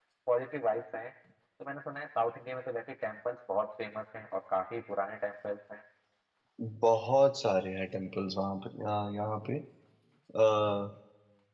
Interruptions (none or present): none